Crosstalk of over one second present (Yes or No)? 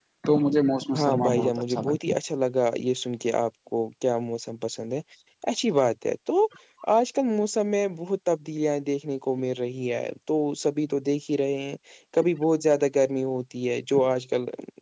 Yes